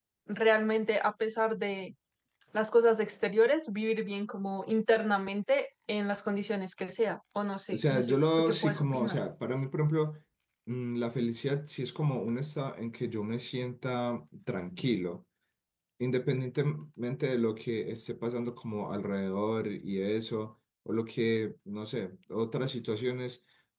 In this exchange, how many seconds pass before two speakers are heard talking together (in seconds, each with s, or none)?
7.7 s